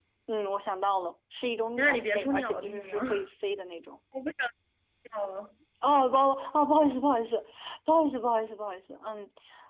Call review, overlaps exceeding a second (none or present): present